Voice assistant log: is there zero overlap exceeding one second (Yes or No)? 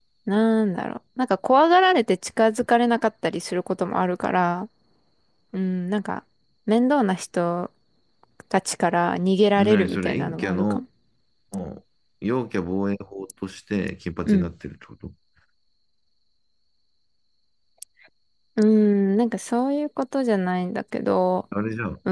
No